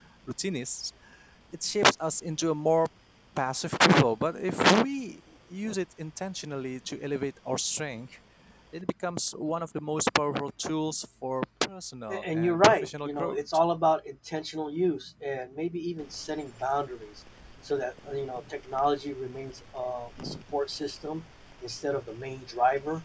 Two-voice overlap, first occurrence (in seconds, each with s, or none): 12.1 s